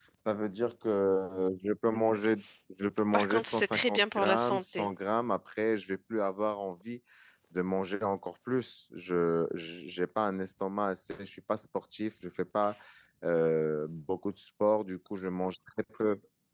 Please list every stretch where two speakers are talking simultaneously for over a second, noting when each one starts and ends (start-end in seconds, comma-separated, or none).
3.1-4.9